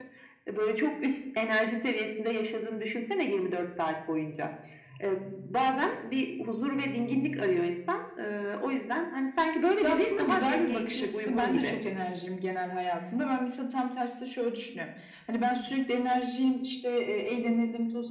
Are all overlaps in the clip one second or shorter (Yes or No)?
No